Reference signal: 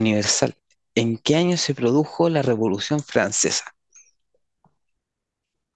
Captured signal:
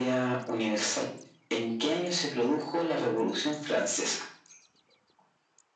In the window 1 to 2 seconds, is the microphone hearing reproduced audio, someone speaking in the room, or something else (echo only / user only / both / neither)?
echo only